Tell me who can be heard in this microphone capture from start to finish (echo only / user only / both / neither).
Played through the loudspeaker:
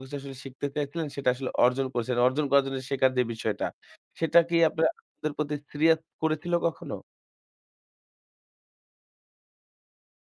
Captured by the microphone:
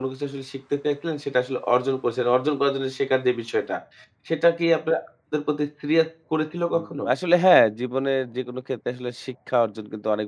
both